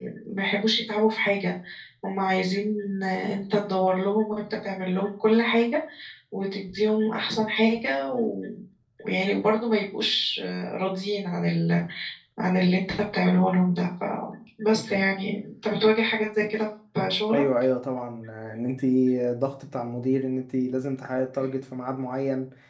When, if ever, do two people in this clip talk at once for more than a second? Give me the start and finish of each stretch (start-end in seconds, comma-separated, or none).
none